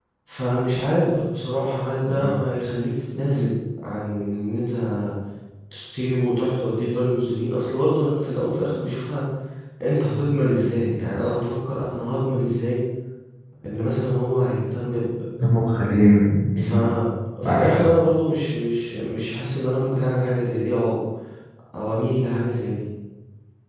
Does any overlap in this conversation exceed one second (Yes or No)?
No